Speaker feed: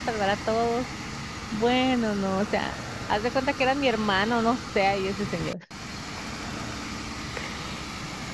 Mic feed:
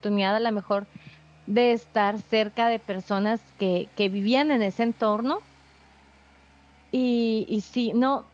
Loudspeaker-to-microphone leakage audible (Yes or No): No